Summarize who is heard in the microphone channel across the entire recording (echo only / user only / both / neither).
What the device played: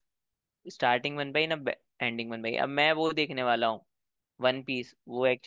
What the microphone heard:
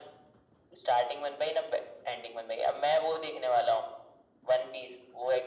echo only